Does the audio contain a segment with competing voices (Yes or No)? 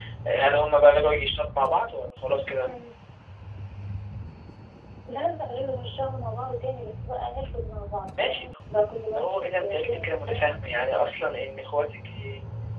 Yes